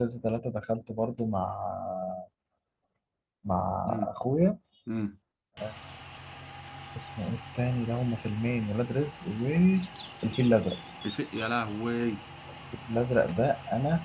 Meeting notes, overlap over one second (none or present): none